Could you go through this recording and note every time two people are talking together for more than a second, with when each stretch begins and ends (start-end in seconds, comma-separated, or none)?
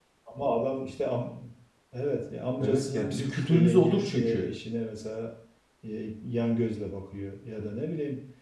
2.6-4.5